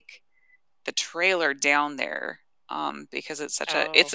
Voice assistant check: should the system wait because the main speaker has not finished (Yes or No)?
No